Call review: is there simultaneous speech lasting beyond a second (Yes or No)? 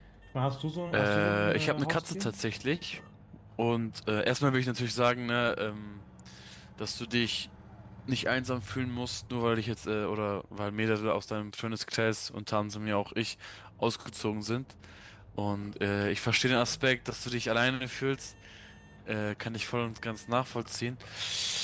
Yes